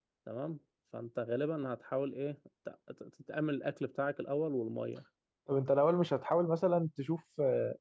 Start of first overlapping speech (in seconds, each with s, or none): none